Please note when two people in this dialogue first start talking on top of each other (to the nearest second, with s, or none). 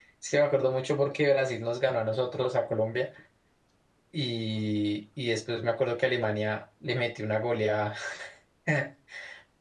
none